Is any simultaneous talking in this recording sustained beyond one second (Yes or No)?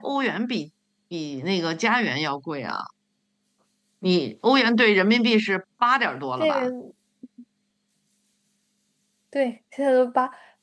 No